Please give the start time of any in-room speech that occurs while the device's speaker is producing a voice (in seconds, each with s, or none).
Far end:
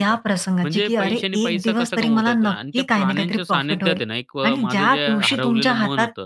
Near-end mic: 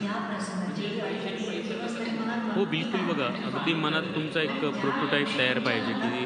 2.5 s